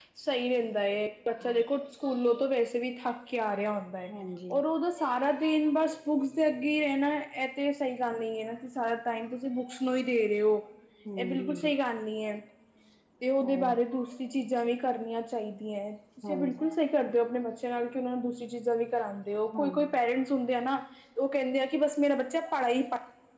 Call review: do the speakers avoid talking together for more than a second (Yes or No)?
Yes